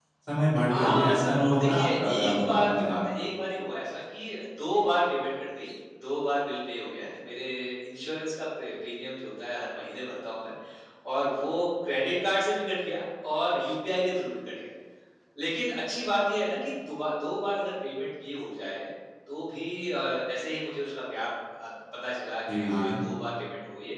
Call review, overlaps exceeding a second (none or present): present